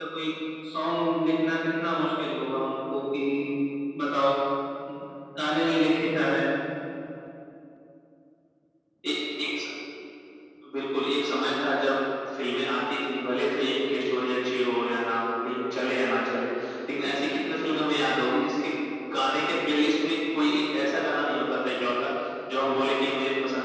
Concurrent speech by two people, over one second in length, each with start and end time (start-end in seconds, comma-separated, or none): none